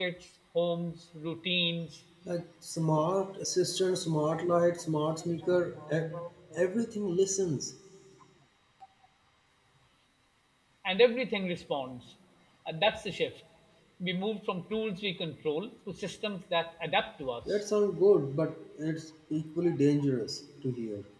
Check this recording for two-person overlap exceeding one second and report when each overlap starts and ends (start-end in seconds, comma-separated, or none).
none